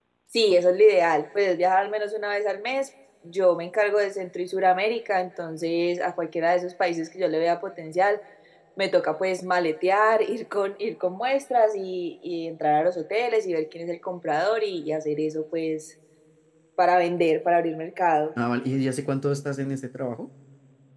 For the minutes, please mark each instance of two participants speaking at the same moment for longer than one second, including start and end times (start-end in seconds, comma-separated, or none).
none